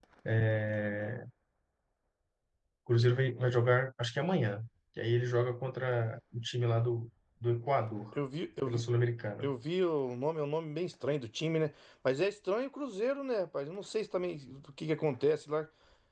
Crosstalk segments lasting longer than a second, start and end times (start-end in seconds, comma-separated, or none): none